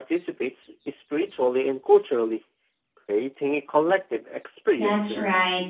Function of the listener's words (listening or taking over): taking over